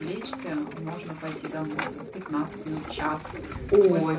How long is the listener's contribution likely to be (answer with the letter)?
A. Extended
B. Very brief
A